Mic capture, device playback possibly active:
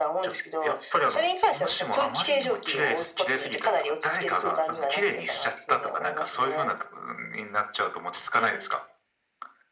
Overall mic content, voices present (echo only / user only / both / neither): echo only